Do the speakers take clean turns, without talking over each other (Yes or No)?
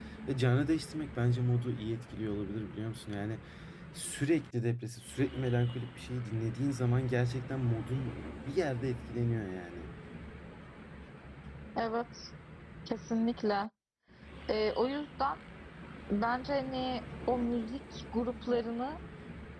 Yes